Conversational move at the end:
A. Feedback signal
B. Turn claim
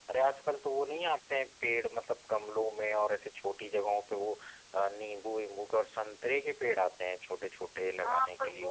B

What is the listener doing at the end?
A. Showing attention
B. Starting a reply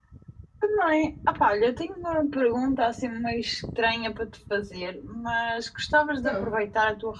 A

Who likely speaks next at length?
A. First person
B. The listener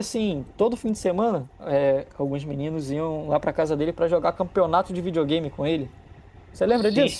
B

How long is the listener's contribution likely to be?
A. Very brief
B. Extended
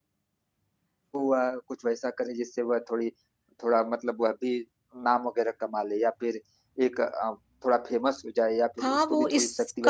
B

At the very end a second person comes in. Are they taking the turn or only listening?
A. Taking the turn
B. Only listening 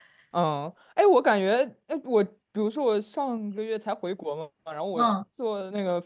B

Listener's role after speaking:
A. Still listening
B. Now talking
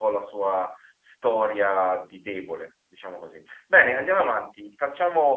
A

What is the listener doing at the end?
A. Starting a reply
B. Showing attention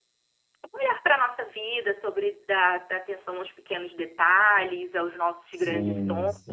A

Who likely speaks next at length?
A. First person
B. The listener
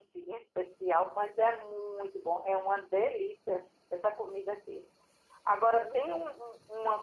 A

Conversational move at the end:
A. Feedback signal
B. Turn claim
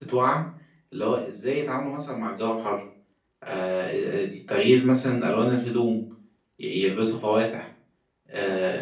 A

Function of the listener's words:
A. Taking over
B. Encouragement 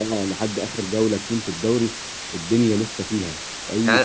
A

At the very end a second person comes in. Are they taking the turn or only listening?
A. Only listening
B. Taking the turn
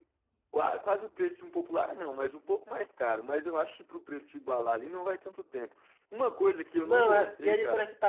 B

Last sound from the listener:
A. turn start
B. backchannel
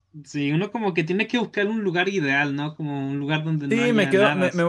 A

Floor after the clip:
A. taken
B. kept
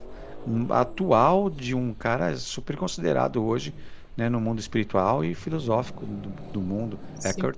A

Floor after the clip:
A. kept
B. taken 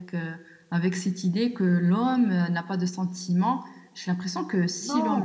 B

